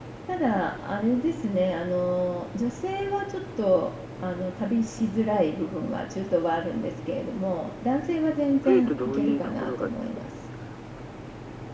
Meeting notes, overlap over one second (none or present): present